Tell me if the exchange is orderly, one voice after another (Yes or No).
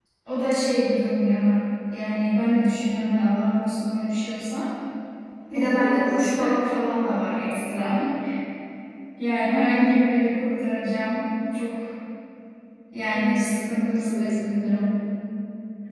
No